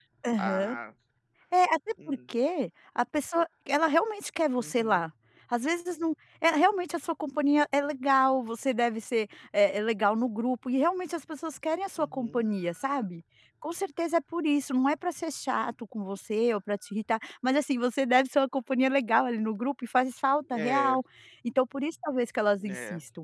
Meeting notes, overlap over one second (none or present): none